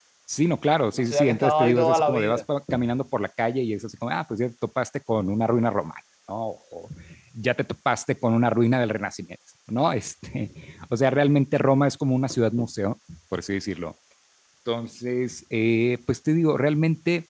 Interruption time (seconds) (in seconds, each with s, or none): 0.9 s